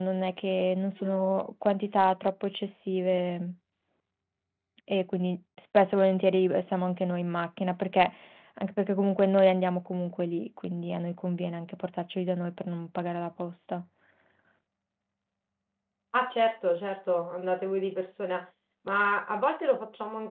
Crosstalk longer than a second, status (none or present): none